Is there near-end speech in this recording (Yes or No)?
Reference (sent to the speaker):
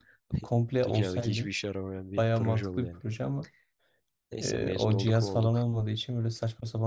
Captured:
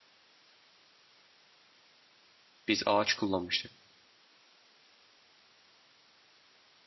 Yes